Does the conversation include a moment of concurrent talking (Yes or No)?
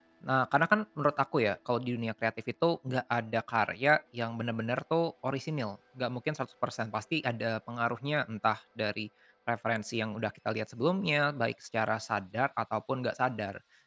No